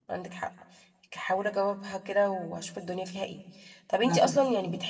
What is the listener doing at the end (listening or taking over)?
listening